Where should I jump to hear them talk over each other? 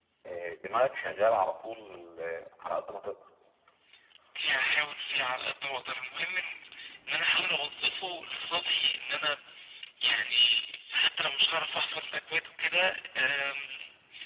none

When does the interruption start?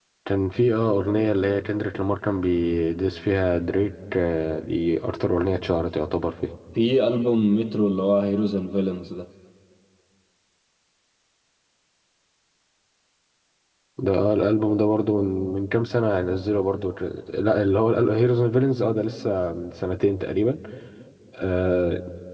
none

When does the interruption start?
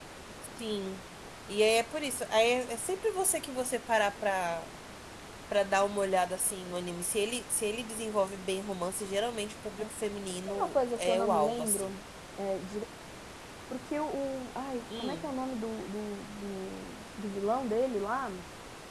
11 s

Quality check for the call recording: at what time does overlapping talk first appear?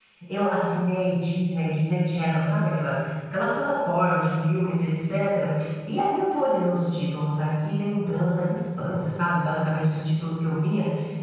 none

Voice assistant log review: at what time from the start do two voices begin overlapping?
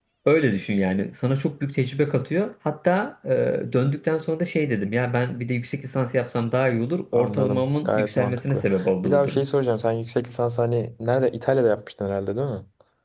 7 s

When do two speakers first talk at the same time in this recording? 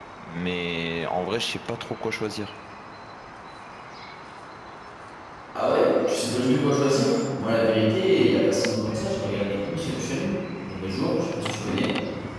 none

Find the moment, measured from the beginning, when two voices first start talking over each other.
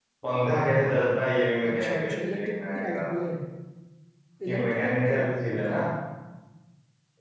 2 s

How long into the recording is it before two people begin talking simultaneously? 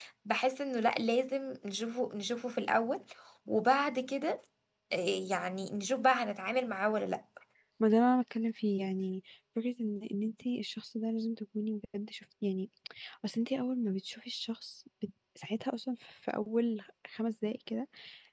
none

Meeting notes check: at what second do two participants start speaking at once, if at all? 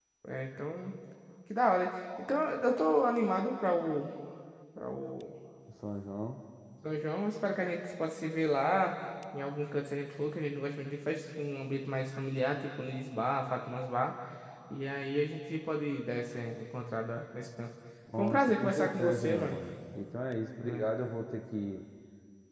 18 s

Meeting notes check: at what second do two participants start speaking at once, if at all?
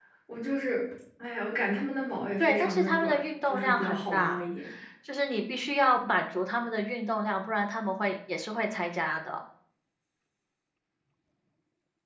2 s

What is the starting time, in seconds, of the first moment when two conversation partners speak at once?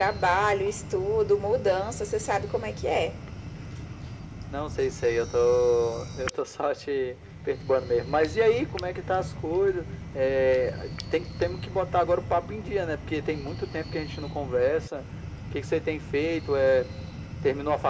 none

